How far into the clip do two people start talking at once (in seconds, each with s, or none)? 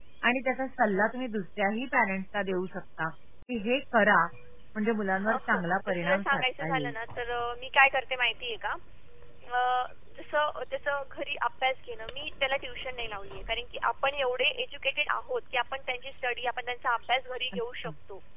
5.3 s